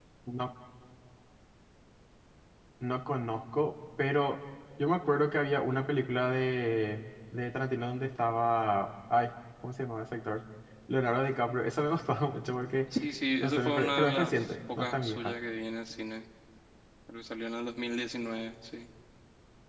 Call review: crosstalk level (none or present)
present